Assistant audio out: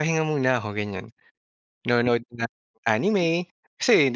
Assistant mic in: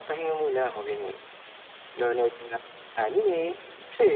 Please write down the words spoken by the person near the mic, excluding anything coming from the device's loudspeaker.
none

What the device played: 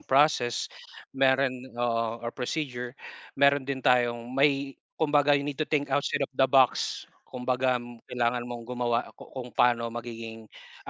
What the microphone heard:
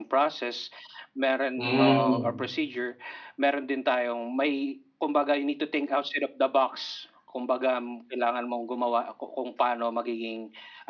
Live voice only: Hmm.

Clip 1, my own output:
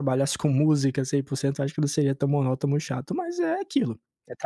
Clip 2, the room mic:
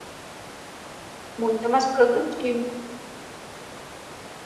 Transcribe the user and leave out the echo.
Muito mais produtivo.

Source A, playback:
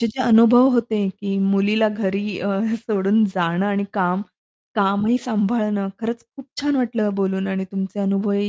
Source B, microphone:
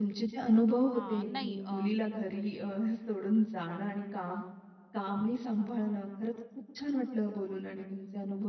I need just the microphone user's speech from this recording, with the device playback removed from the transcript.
हां. नाही, अ,

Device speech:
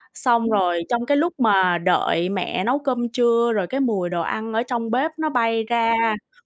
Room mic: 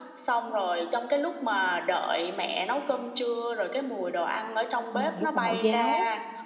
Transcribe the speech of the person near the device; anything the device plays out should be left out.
Ừm, lúc mà mẫu giáo.

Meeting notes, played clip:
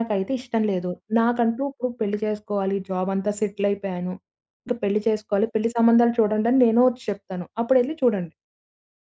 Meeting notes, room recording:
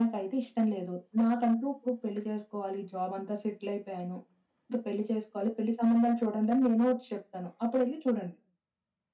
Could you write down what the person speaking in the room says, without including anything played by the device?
none

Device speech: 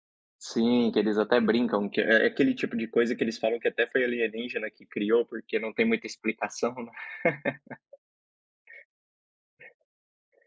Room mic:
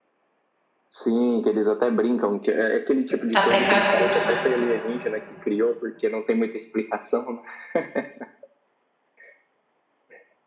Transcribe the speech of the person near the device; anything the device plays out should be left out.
Tem tá precavido, né?

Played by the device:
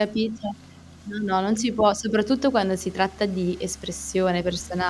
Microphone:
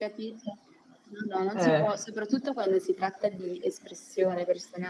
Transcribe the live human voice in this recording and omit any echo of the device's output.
Eh.

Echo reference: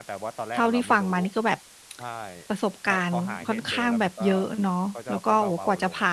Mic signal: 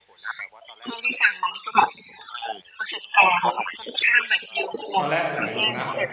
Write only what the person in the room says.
ตอนแรกผมไม่รู้นะ

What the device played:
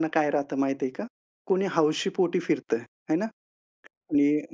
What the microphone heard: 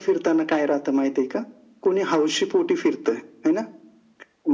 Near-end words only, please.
none

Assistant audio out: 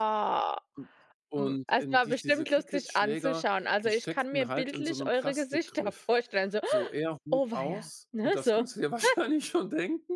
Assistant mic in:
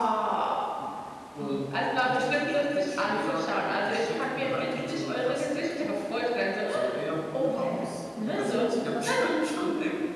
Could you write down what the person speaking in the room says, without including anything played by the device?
none

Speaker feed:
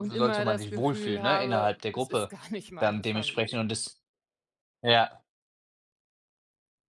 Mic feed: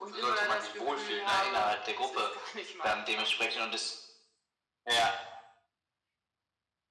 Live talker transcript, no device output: none

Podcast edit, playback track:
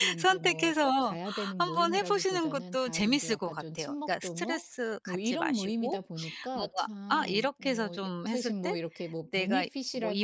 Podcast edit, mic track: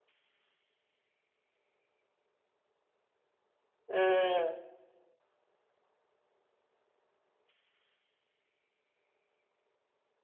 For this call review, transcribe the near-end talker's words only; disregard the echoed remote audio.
음.

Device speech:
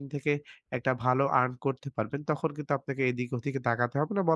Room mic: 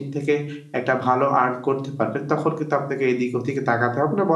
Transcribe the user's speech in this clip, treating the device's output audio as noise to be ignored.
none

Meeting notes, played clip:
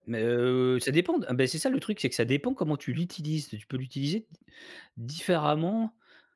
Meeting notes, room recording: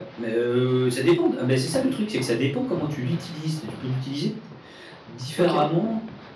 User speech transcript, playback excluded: OK.

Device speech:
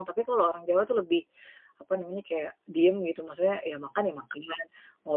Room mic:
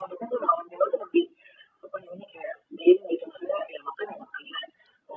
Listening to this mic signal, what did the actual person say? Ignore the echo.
none

